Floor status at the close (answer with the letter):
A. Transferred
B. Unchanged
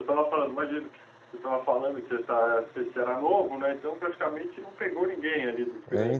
A